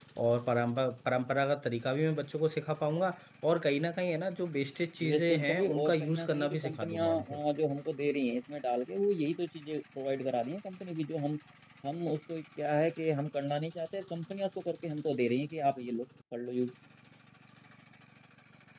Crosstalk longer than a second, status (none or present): present